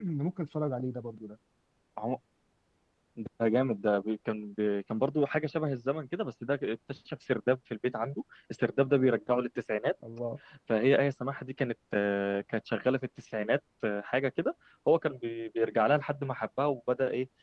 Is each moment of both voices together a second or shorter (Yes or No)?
Yes